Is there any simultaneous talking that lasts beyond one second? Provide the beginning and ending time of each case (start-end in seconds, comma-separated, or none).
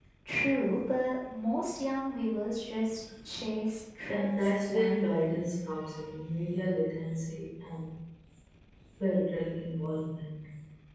4.0-5.4